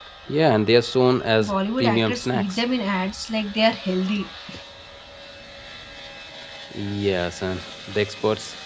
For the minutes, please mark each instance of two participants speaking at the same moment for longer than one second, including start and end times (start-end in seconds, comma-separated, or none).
1.4-2.6